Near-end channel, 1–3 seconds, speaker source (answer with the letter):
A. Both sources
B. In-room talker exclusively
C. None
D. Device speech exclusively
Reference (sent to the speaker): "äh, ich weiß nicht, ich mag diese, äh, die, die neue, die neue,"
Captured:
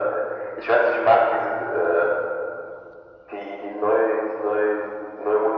D